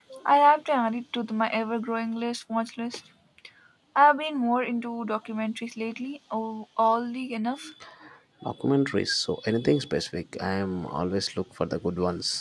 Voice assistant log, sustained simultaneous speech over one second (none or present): none